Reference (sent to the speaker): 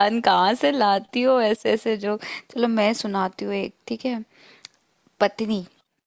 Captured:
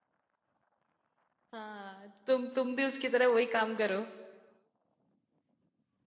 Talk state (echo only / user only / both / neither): user only